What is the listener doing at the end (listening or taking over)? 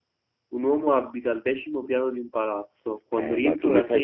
taking over